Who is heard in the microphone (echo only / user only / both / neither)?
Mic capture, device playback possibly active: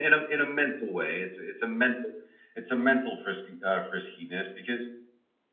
echo only